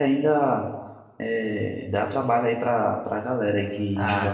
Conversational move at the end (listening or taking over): taking over